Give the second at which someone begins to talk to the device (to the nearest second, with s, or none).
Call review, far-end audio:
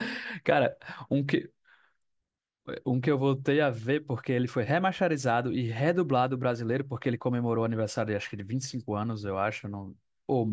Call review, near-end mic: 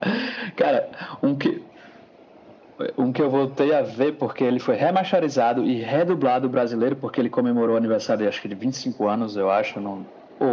none